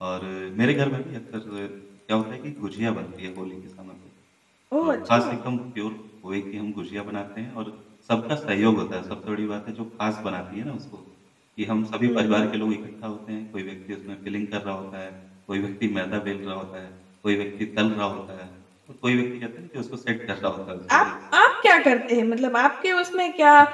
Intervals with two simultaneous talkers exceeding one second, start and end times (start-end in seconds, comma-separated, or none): none